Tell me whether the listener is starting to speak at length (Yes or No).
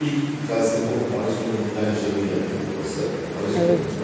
No